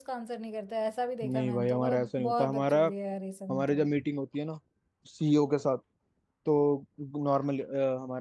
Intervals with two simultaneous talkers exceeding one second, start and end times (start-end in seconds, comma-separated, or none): 1.3-2.8